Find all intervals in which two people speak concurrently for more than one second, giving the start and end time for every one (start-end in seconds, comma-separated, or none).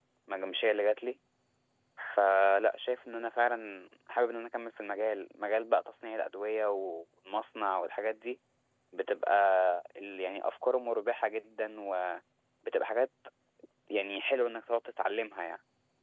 none